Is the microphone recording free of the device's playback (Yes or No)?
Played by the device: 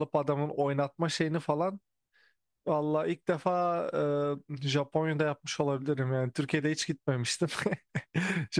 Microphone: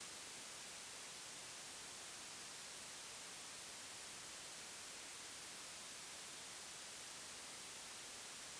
Yes